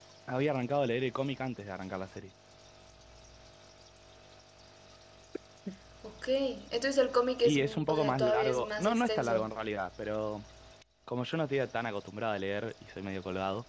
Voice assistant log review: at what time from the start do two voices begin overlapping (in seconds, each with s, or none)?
7.5 s